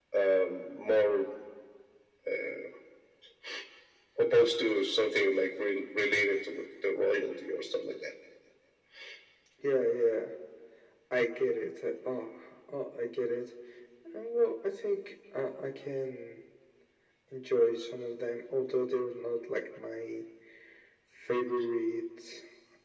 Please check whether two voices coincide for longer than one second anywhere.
No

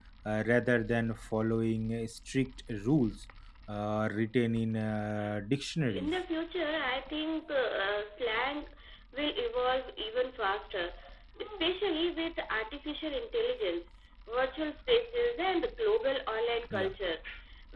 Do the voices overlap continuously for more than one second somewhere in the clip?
No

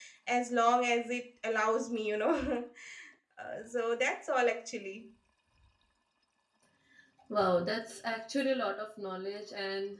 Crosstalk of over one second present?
No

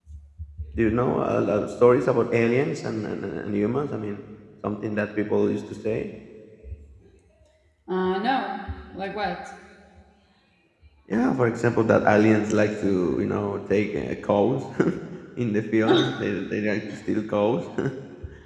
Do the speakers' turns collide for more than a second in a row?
No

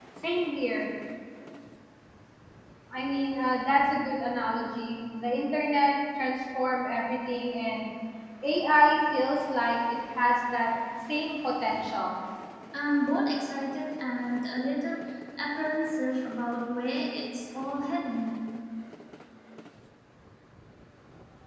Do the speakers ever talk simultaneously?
No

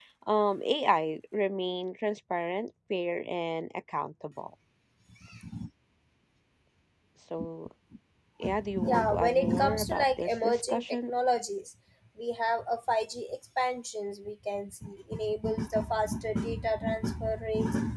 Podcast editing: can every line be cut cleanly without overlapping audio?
No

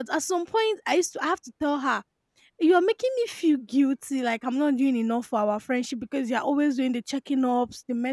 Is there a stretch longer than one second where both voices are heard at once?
No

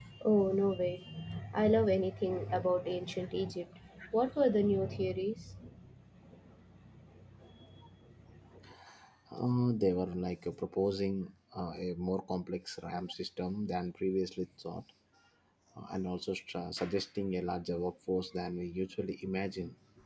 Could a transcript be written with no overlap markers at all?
Yes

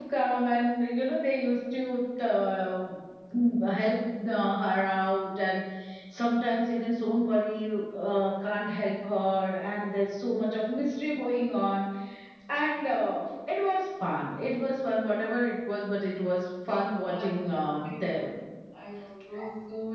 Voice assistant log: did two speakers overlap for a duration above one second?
No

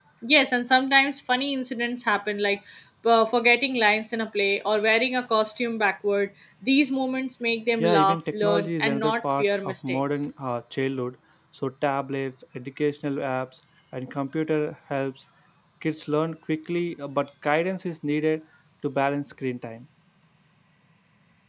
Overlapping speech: Yes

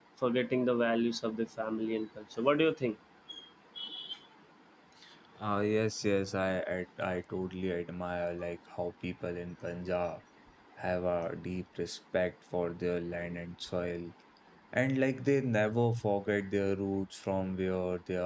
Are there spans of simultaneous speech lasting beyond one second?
No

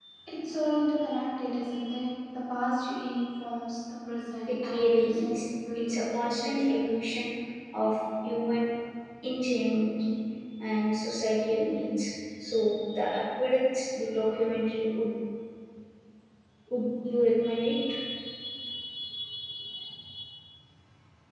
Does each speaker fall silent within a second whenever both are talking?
No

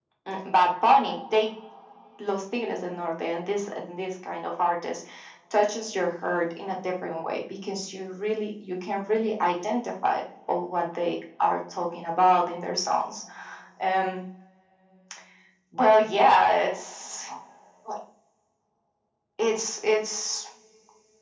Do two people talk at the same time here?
No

